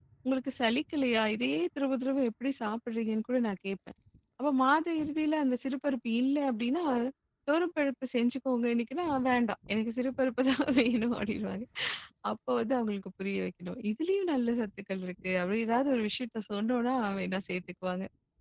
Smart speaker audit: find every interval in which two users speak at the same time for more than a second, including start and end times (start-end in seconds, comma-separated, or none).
none